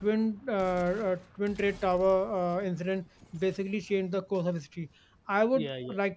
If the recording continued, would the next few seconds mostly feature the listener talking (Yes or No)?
No